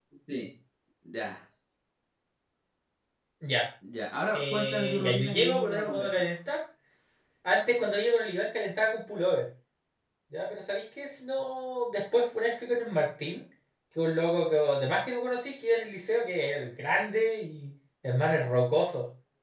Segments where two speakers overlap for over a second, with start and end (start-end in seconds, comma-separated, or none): 4.3-6.2